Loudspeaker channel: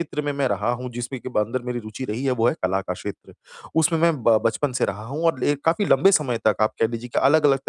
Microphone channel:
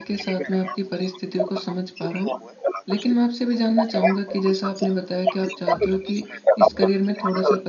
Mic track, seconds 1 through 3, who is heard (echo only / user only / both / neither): both